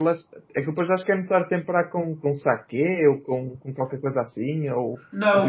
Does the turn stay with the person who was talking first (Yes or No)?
No